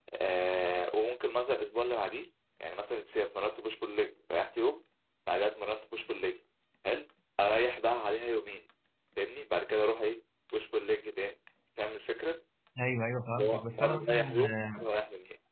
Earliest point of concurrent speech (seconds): 13.3 s

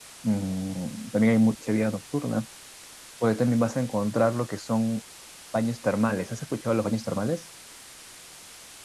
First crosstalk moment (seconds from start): none

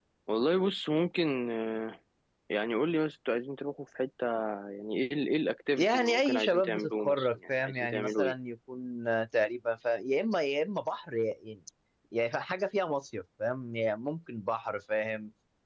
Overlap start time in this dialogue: 5.8 s

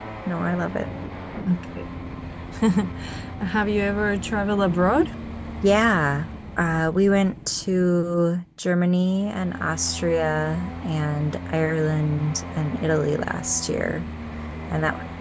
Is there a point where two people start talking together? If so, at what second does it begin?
none

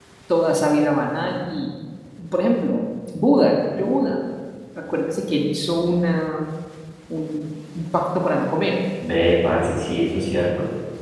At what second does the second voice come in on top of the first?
none

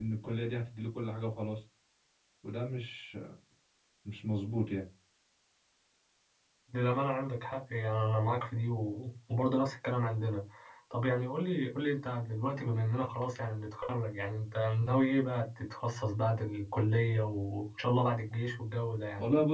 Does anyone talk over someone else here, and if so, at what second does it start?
none

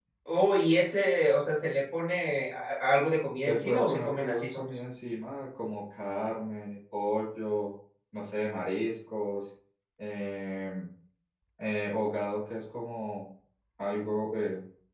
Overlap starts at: 3.5 s

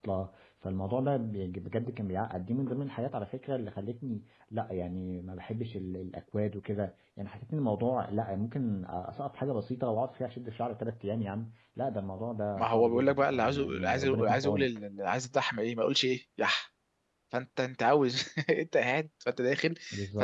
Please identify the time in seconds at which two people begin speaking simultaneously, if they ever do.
12.6 s

